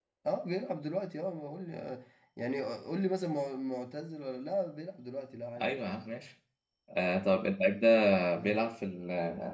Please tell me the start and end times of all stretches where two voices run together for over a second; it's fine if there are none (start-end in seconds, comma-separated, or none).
none